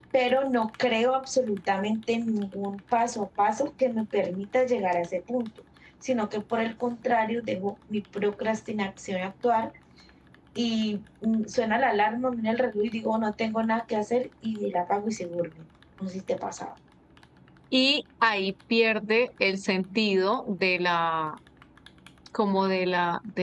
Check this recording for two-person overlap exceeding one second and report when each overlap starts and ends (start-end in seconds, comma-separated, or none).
none